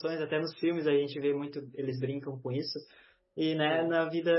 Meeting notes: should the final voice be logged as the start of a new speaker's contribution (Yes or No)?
No